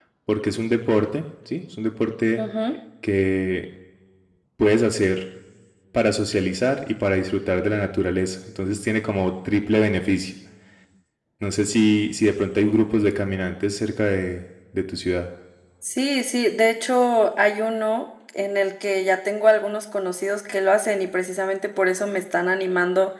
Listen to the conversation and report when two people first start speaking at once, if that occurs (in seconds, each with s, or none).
none